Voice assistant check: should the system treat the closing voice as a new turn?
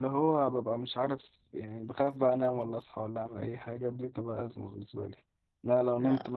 No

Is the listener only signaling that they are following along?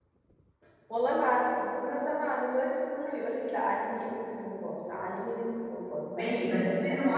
No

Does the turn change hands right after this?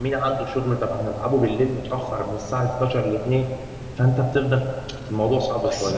Yes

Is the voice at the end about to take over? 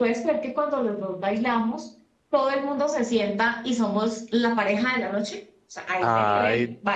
Yes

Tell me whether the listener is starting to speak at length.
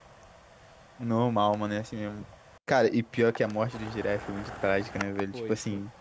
No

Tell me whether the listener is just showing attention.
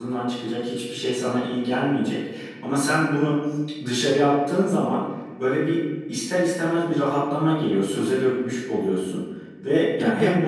Yes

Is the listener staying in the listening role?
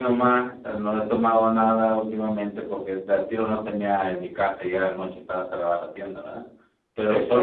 Yes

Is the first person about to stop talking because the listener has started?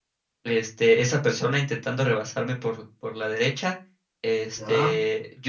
No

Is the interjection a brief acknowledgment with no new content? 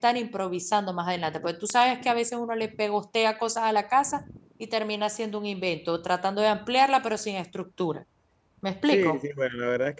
No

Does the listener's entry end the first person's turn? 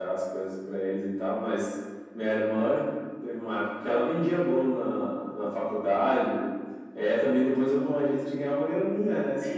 Yes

